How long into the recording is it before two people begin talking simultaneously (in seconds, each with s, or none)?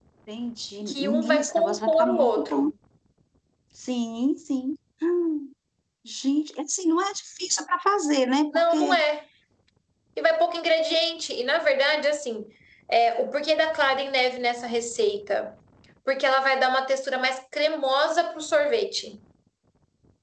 0.9 s